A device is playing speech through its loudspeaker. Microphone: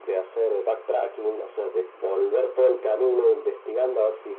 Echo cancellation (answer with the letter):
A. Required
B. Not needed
A